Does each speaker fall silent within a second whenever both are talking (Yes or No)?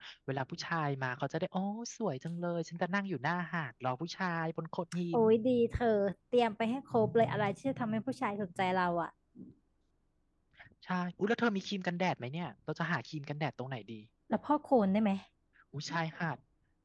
Yes